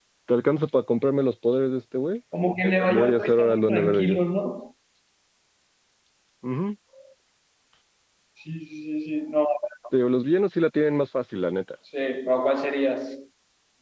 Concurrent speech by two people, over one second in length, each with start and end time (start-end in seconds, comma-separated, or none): 2.9-4.2